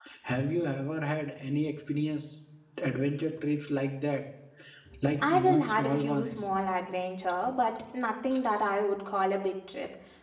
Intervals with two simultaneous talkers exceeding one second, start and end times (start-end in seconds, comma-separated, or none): 5.2-6.4